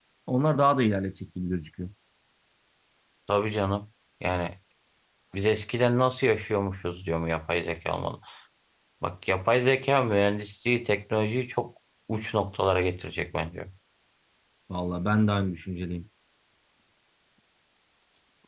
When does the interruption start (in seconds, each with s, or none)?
none